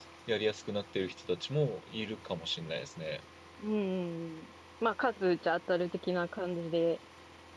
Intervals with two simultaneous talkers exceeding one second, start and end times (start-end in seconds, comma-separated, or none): none